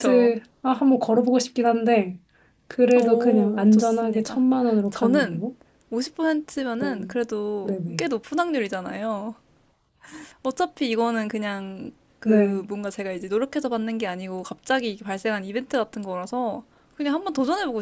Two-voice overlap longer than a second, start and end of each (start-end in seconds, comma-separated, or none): 3.0-4.4